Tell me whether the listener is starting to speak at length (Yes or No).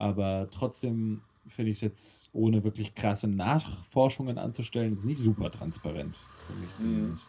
Yes